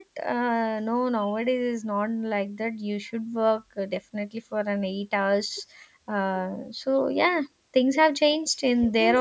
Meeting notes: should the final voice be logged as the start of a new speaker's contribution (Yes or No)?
Yes